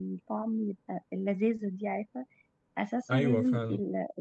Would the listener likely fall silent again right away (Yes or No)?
Yes